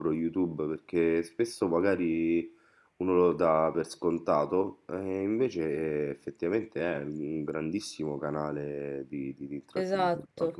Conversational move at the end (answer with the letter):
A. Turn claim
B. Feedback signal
A